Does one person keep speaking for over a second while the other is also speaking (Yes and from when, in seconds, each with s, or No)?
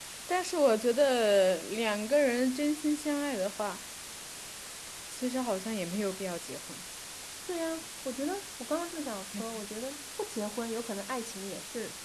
No